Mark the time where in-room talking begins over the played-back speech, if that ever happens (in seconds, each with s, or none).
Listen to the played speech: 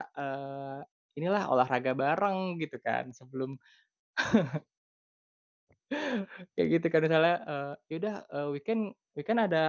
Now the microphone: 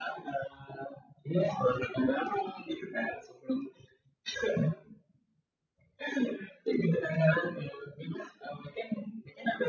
none